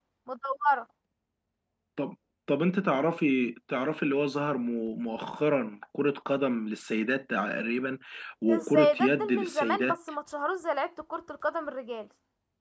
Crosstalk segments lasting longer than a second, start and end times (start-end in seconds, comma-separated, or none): 8.5-9.9